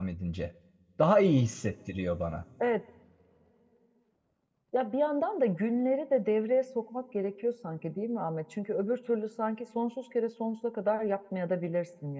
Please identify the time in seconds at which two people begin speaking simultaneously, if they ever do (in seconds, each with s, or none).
none